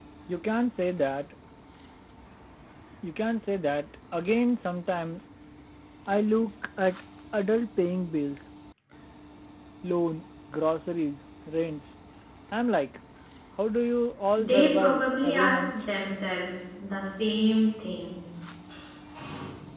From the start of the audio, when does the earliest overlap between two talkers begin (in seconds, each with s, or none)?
14.4 s